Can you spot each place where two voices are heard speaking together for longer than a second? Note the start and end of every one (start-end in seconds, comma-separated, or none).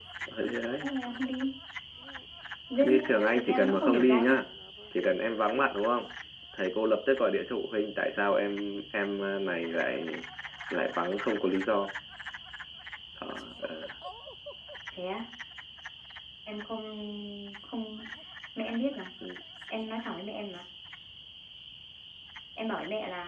2.8-4.4